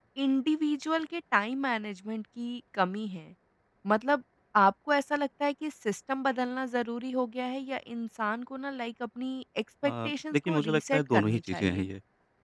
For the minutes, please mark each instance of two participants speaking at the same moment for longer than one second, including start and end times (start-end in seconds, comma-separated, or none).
9.8-11.9